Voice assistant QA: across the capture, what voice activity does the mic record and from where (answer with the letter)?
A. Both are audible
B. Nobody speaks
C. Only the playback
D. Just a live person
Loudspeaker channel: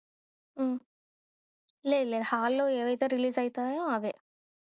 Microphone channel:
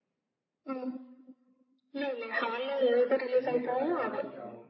A